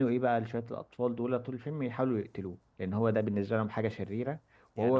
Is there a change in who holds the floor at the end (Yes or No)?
Yes